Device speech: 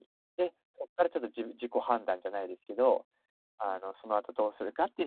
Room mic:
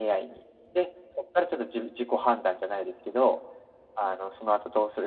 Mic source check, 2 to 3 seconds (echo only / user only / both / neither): echo only